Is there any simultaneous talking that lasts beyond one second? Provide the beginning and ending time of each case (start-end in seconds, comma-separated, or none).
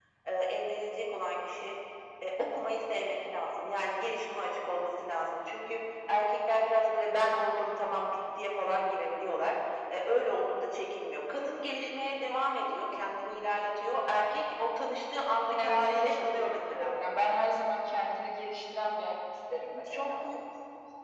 15.6-16.9